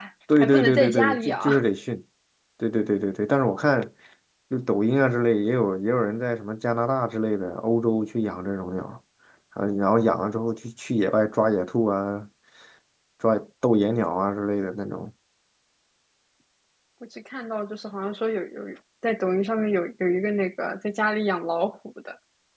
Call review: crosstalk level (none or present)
present